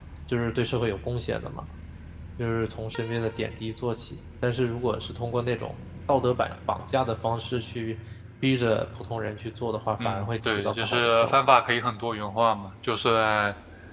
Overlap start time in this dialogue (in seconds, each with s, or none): 10.0 s